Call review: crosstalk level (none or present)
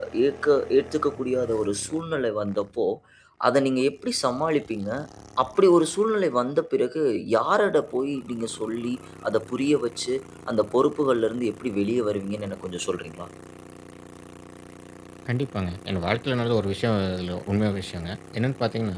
none